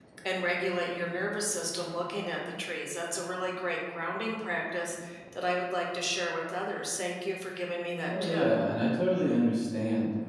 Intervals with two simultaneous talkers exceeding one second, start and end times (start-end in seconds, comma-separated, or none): none